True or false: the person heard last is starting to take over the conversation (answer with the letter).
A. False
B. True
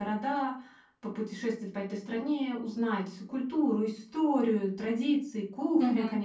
B